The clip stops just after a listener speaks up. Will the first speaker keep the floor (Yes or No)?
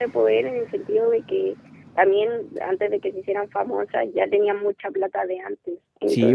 No